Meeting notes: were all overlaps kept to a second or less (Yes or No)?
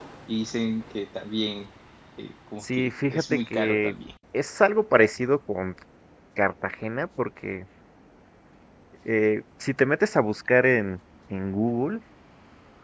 No